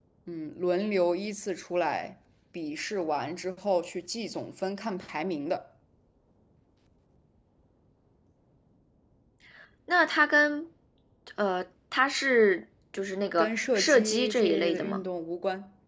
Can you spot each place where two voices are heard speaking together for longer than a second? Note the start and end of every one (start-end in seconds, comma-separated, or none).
13.4-15.0